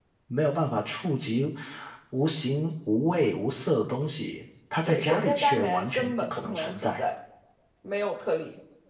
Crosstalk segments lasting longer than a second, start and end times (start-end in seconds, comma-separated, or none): 4.8-7.0